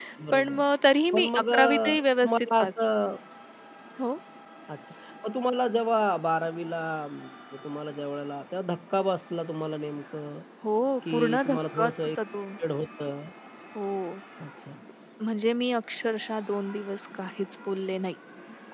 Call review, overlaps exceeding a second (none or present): present